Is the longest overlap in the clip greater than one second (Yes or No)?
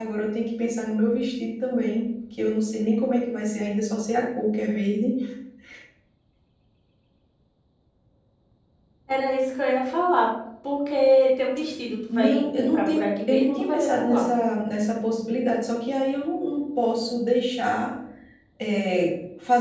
Yes